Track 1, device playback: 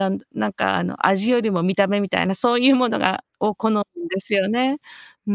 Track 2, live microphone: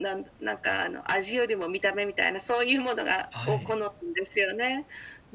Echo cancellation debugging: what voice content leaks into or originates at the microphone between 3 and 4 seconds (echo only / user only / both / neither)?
both